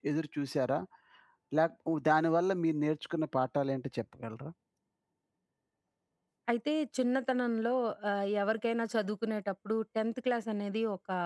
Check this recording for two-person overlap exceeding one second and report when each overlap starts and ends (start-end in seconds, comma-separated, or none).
none